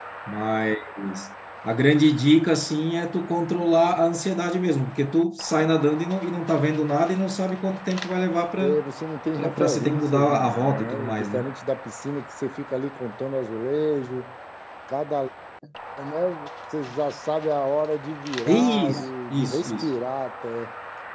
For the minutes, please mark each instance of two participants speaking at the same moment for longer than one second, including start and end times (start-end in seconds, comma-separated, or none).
9.4-11.4, 18.5-19.9